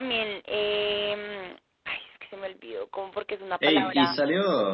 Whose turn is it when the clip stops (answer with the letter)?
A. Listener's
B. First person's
A